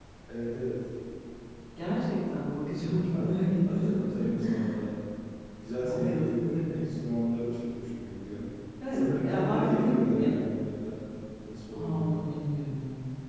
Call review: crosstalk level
present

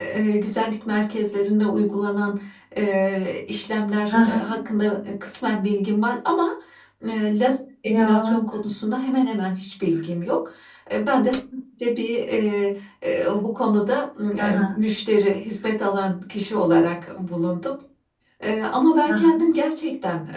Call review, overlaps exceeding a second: none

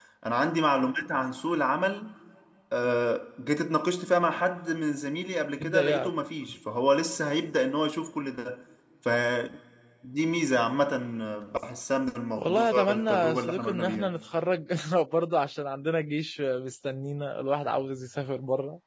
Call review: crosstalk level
present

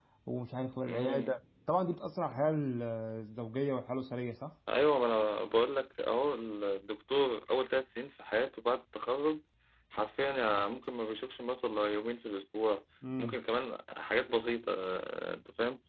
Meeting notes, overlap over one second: none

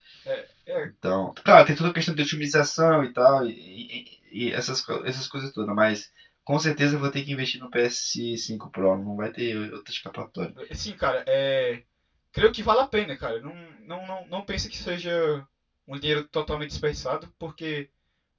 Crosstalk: none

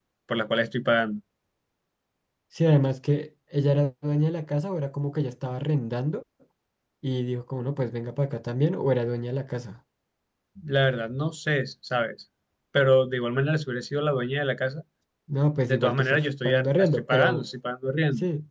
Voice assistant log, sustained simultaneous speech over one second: present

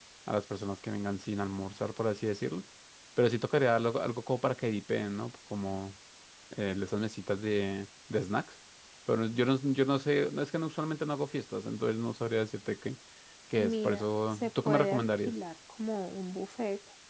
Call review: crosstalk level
present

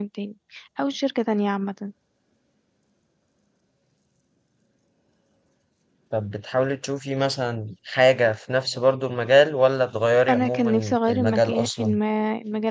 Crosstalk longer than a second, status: present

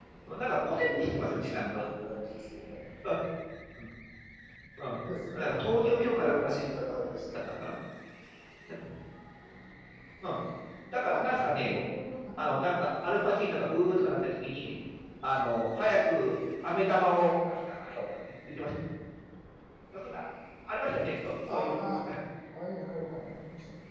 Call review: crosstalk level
present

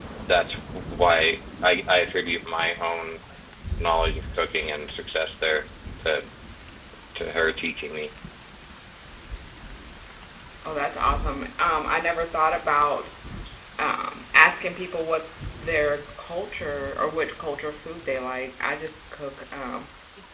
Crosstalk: none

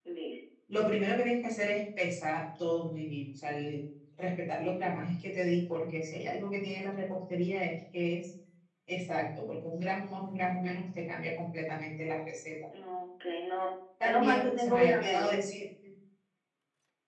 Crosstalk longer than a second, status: present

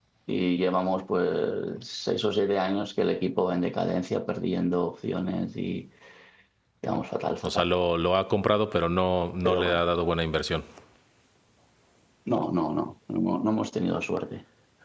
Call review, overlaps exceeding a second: none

